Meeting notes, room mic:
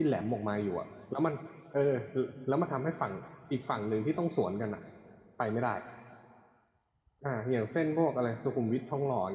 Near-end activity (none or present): present